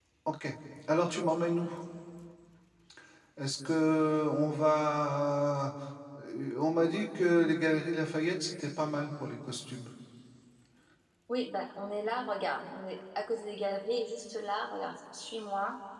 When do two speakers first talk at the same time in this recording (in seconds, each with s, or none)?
none